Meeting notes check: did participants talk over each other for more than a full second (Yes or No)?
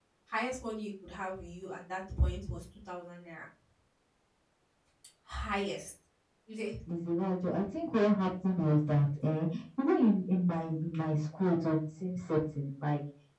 No